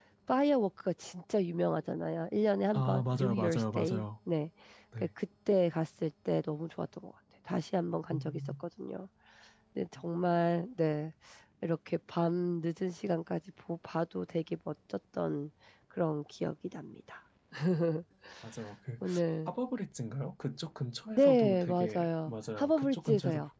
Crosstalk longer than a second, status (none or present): present